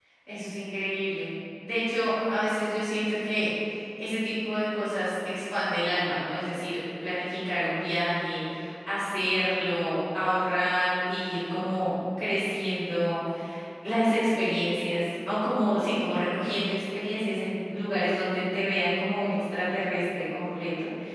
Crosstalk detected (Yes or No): No